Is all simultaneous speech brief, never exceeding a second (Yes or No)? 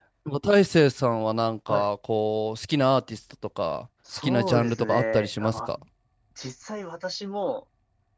No